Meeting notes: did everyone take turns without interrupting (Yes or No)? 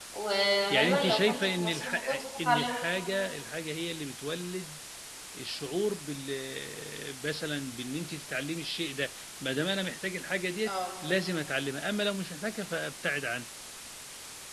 No